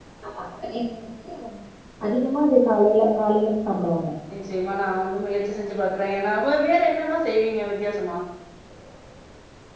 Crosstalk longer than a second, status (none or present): none